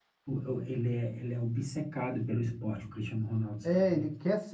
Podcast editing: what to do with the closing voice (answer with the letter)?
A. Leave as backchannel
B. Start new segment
B